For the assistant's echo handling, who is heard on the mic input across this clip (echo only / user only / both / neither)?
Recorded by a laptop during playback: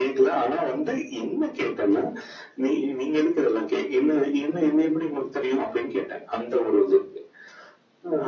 echo only